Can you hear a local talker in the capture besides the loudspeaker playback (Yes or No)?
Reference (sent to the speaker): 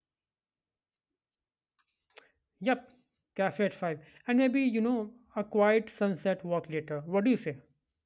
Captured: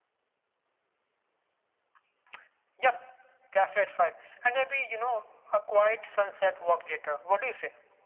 No